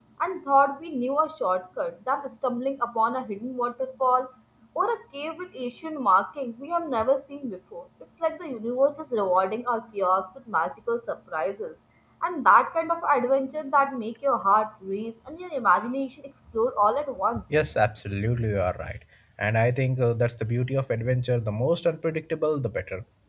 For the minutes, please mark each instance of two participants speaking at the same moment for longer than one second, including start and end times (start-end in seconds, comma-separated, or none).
none